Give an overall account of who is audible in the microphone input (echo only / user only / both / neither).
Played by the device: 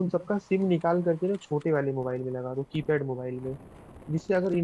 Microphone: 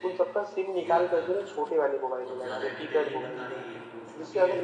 both